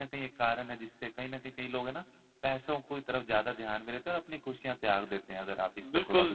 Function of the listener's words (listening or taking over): taking over